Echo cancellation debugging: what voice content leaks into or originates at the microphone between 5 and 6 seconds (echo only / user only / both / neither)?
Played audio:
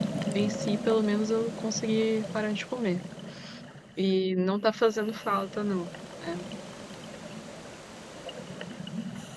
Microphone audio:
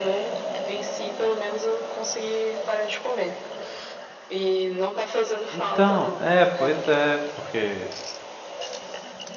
both